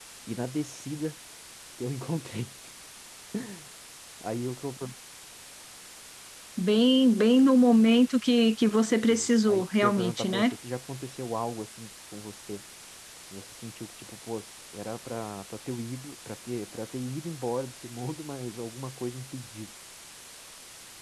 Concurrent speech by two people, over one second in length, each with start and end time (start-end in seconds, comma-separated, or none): 9.1-10.5